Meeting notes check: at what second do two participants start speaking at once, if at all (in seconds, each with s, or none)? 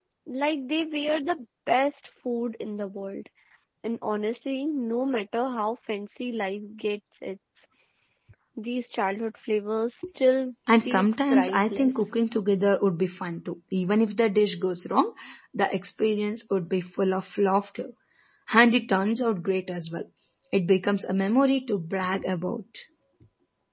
10.7 s